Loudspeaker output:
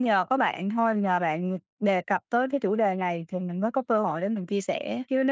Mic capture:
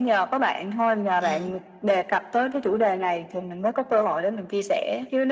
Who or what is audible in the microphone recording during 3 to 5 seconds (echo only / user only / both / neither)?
echo only